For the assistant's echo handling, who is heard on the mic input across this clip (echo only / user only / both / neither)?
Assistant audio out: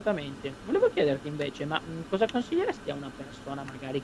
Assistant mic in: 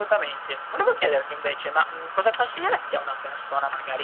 echo only